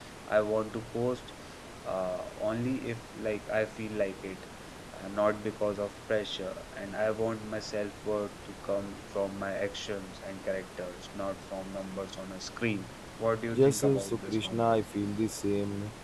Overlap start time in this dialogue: 14 s

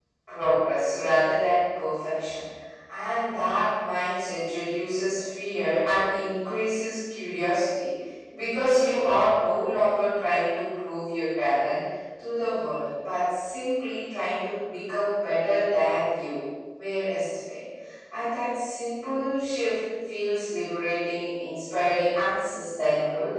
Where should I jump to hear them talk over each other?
none

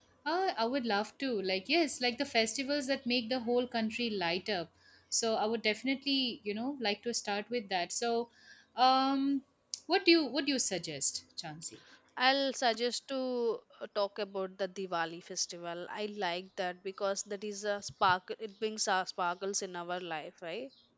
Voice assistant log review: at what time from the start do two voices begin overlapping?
none

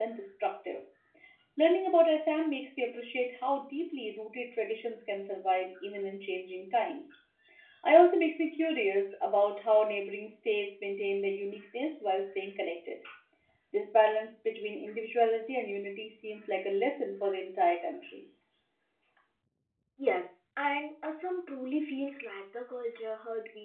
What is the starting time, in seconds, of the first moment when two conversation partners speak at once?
none

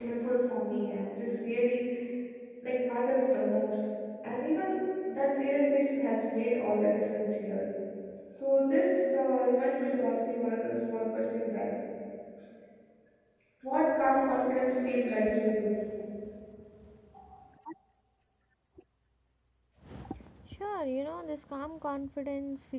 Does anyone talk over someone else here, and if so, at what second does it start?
none

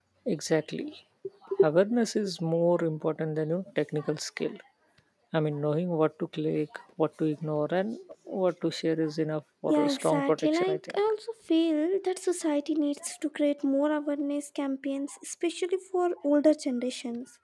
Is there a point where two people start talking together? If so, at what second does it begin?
10 s

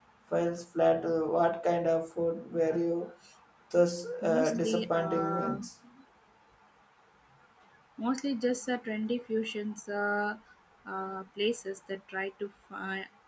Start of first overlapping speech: 4 s

